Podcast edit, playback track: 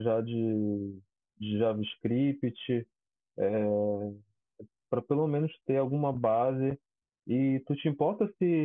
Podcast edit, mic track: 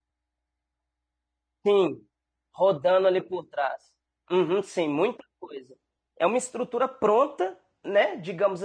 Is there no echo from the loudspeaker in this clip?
Yes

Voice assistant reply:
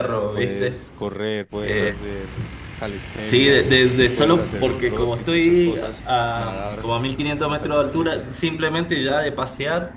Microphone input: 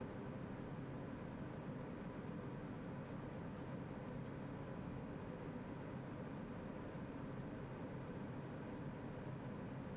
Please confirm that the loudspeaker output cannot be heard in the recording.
Yes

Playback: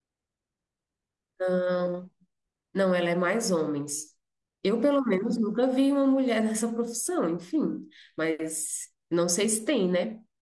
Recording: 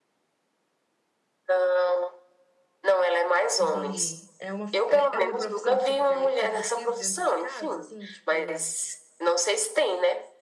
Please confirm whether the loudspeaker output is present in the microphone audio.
Yes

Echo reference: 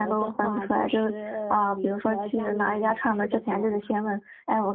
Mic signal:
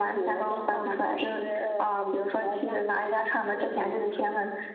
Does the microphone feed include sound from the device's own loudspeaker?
Yes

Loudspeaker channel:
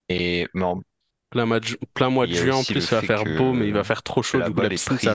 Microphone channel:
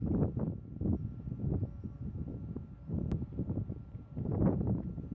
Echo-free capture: Yes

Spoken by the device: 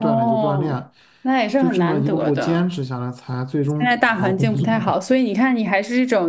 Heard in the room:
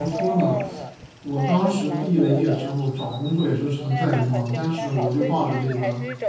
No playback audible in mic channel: No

